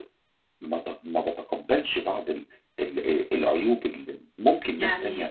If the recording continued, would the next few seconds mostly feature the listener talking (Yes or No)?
No